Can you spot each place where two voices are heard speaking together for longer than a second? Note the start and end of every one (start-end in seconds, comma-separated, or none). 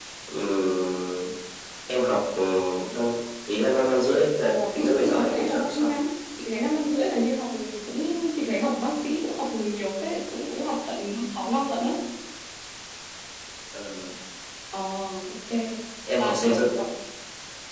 4.4-6.0